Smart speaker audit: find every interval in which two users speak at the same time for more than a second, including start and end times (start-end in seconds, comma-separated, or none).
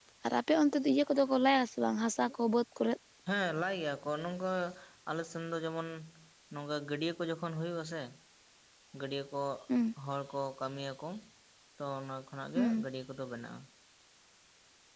none